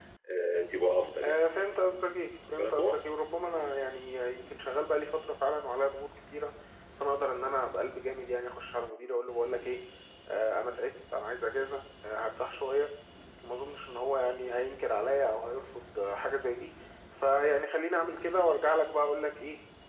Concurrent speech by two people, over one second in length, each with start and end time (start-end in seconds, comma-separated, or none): none